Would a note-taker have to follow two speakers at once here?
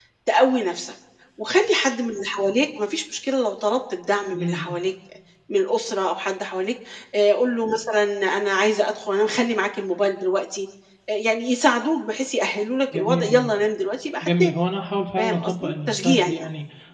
Yes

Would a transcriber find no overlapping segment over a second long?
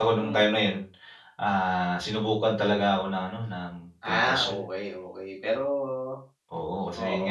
Yes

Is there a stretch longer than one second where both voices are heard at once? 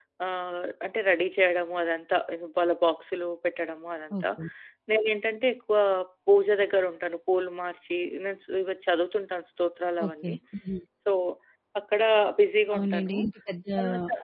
No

